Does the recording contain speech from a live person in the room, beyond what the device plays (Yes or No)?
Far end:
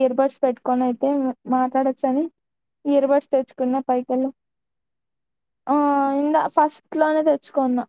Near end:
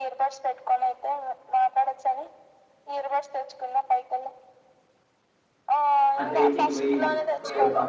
Yes